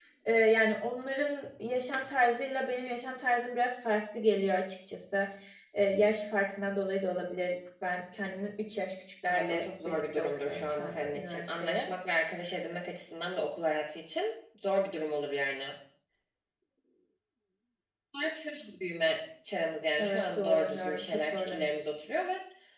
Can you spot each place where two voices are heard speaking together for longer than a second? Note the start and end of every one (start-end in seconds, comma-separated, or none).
9.3-11.9, 20.0-21.6